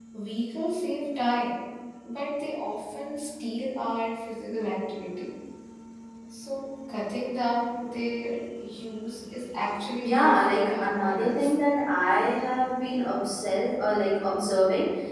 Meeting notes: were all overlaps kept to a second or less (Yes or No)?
No